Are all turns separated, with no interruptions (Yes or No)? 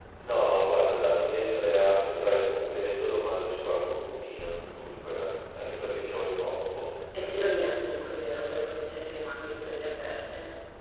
Yes